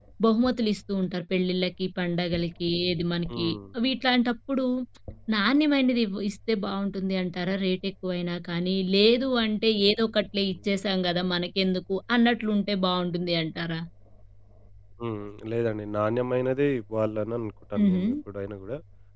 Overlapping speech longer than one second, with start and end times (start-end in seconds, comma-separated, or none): none